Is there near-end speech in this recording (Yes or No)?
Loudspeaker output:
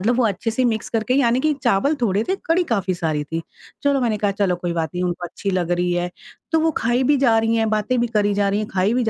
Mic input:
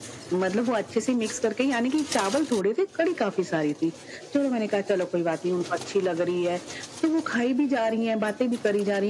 No